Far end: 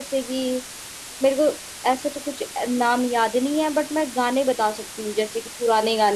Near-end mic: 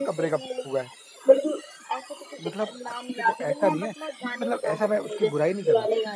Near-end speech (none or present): present